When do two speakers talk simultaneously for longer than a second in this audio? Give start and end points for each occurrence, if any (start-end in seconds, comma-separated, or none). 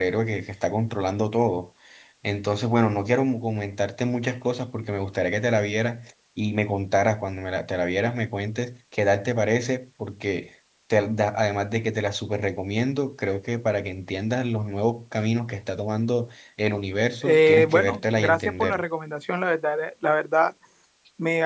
17.2-18.8